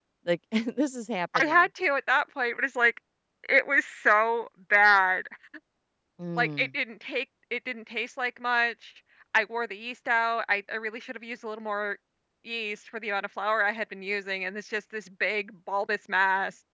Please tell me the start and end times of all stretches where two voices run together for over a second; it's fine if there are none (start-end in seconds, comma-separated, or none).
none